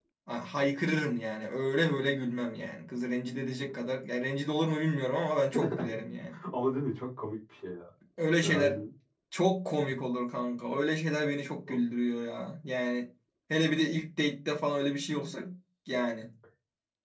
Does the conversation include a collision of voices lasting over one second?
No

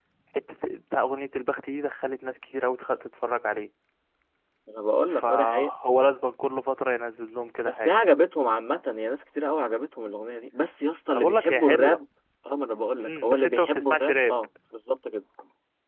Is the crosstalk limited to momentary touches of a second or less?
No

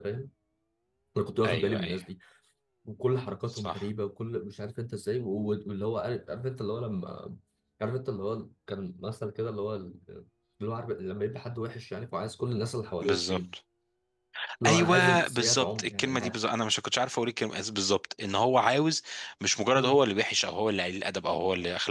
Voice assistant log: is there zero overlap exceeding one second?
No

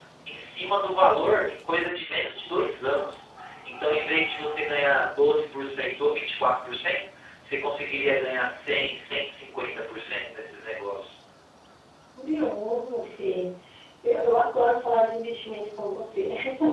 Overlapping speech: No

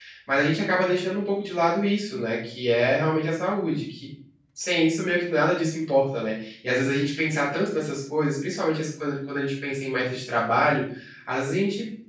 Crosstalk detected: No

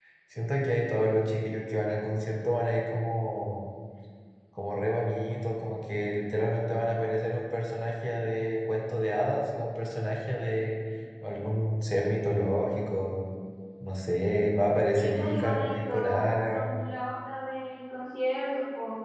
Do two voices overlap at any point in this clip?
Yes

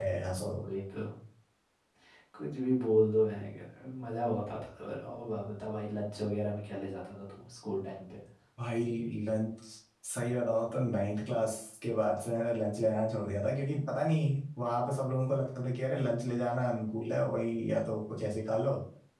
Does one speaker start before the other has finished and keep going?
No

